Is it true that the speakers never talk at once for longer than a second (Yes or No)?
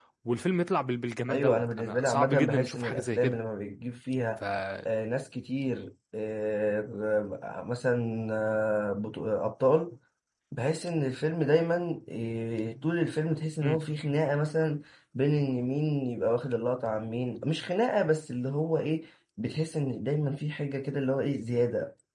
No